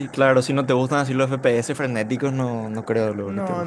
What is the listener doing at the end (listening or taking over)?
taking over